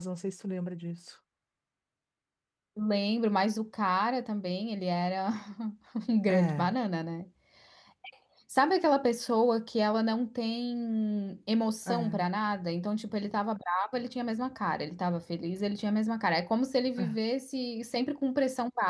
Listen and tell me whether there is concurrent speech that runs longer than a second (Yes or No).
No